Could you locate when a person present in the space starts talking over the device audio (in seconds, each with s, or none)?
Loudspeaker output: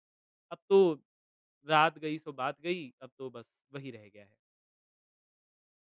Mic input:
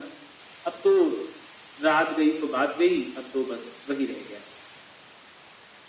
none